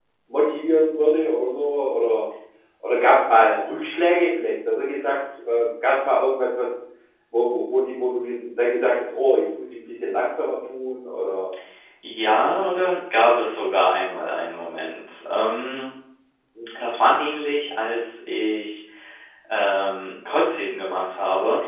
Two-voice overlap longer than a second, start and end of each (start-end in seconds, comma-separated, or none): none